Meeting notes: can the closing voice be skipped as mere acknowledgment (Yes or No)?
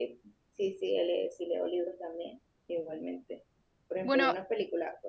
Yes